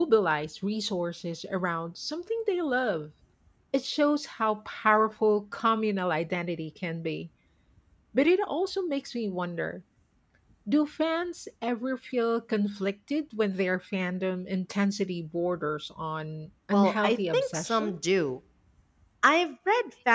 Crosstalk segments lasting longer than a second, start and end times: 16.7-17.9

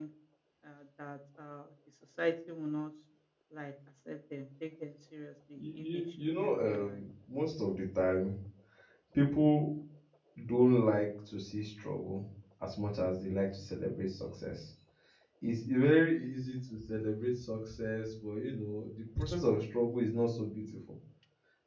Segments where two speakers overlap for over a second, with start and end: 5.6-7.0

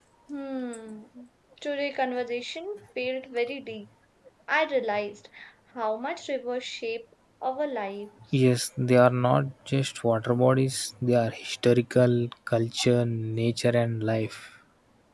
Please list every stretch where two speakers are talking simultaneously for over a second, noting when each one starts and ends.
none

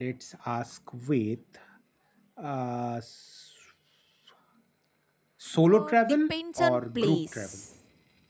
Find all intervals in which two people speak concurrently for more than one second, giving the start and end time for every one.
5.6-7.6

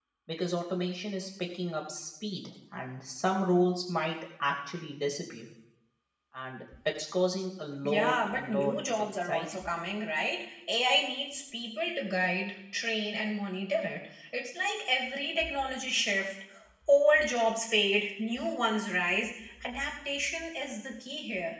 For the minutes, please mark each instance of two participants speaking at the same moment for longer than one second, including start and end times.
7.8-9.6

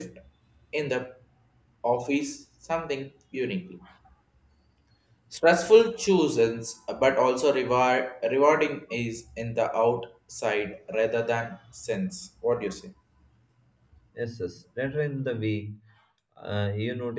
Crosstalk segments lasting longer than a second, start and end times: none

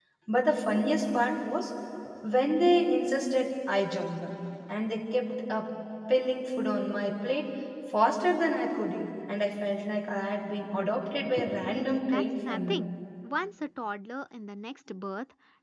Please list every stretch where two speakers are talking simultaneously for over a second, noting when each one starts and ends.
11.7-12.9

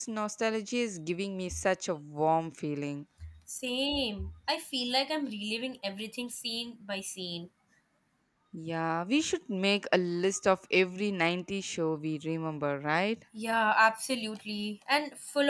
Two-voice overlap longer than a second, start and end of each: none

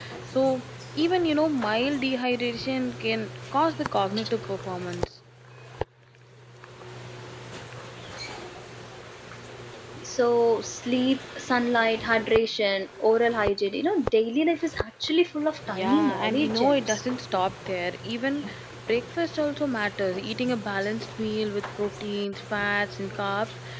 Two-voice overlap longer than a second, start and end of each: 15.7-17.0

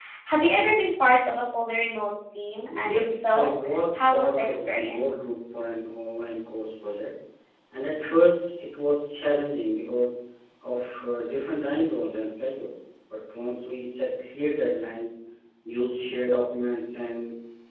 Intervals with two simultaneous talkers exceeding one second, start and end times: 2.8-5.2

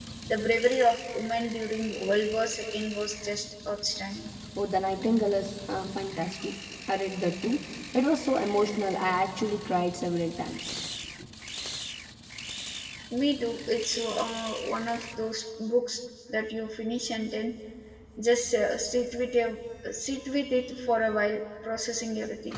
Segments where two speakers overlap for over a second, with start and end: none

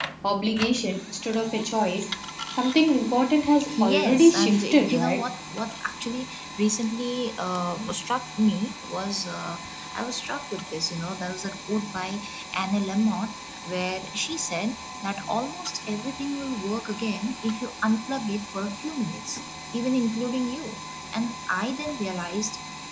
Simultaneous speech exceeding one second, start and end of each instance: 3.8-5.2

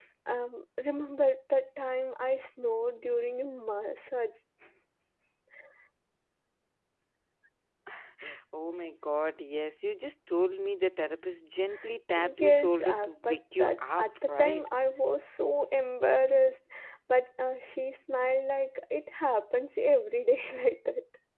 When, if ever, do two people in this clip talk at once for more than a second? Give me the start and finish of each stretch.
12.2-14.7

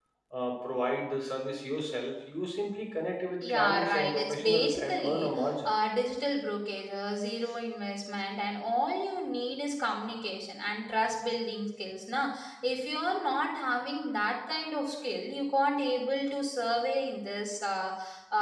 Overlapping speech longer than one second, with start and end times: 3.4-5.8

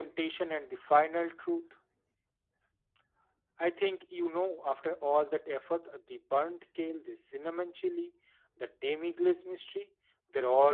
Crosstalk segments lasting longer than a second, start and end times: none

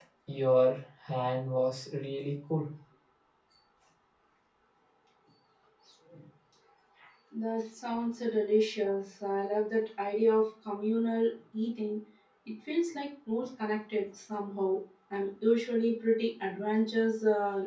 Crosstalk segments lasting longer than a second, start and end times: none

